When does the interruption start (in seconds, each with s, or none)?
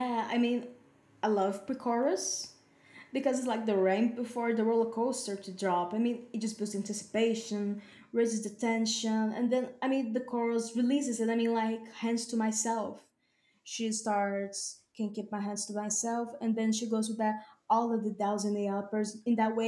none